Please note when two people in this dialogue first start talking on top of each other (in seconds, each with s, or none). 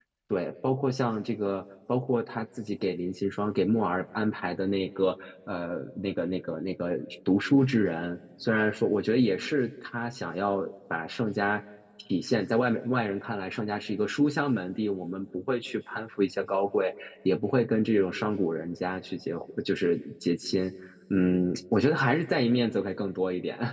none